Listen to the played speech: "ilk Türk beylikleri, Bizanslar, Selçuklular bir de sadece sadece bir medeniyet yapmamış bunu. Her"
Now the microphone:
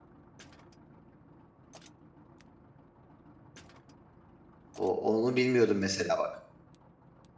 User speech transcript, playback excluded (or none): O, onu bilmiyordum mesela bak.